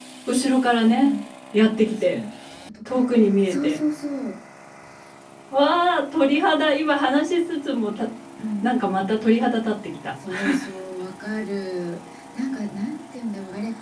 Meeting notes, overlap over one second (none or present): none